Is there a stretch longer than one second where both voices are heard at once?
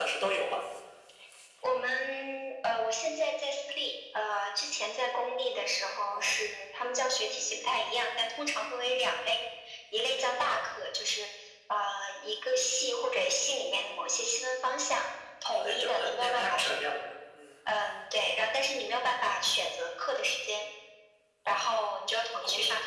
Yes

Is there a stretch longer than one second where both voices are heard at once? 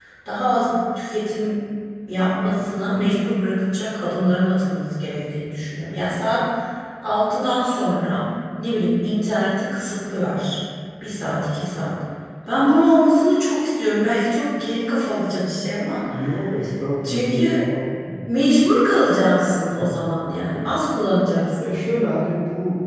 No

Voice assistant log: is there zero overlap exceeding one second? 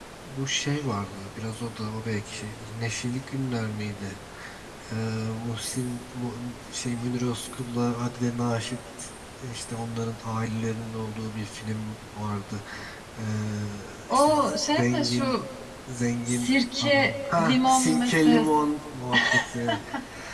No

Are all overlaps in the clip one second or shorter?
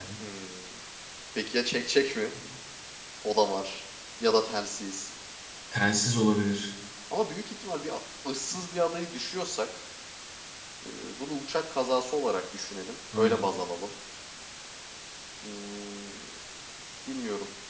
Yes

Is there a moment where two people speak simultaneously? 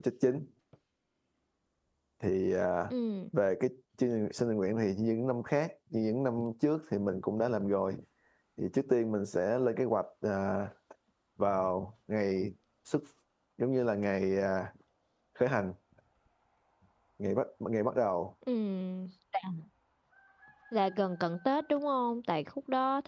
No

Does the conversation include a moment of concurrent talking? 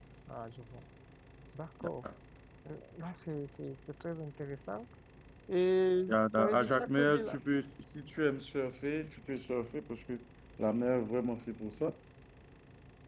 Yes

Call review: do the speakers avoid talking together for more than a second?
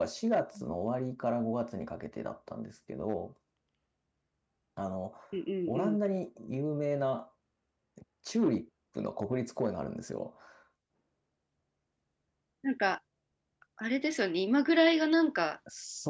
Yes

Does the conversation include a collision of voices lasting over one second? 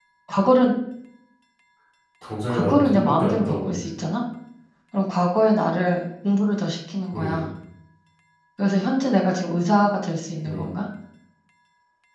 Yes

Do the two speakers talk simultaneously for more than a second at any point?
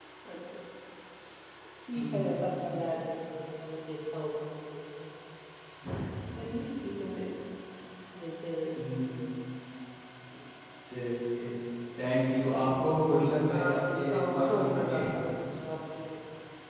Yes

